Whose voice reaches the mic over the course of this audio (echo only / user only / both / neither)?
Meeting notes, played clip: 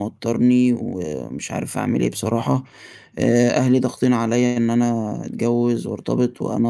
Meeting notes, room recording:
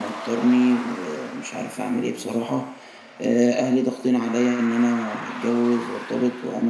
echo only